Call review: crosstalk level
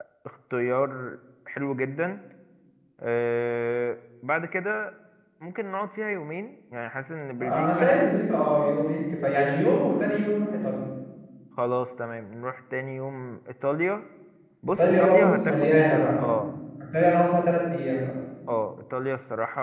present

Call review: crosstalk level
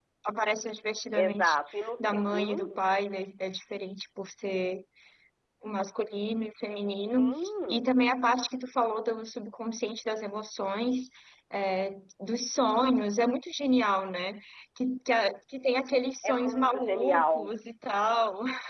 present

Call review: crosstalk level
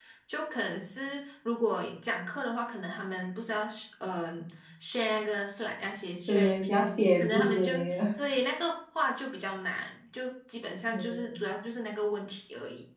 present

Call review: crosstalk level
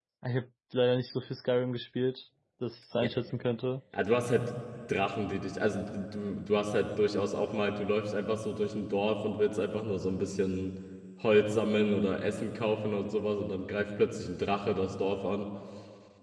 none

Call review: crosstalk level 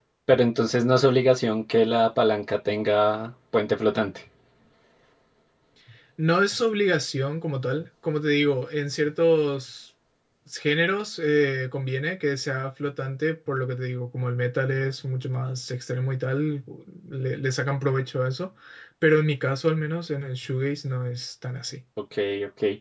none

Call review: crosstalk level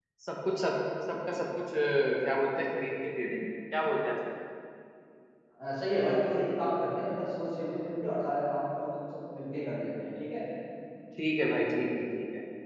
none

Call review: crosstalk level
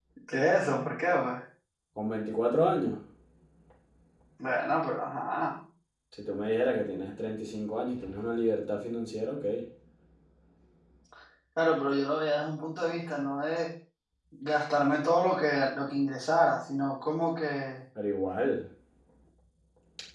none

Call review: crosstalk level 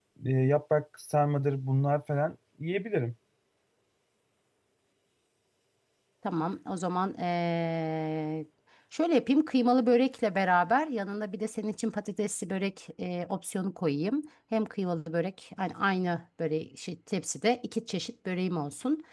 none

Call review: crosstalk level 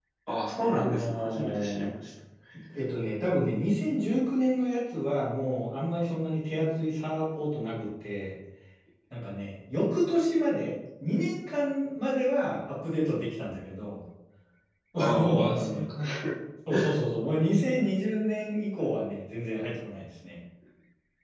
present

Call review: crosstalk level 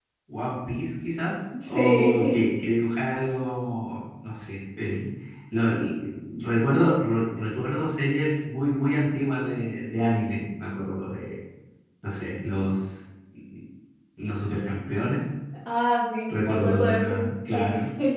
present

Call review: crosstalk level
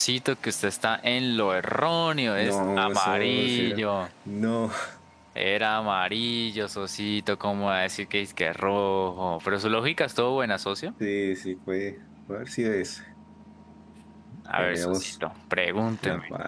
present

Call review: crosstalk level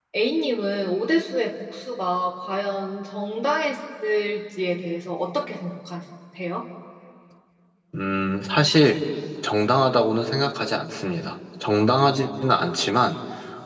none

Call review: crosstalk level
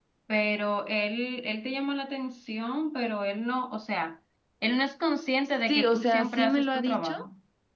present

